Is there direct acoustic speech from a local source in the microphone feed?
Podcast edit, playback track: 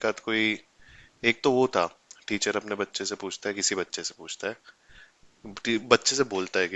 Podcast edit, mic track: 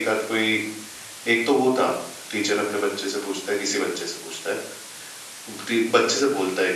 No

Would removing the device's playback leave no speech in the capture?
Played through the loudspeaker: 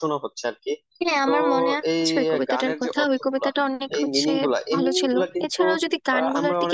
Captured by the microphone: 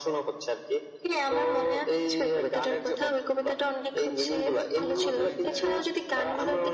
No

